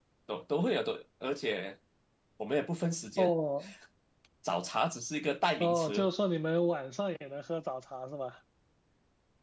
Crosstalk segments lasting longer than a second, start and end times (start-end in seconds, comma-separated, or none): none